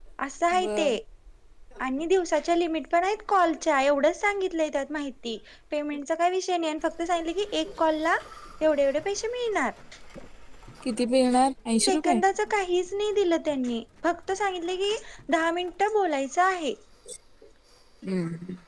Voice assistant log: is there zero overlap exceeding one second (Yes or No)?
Yes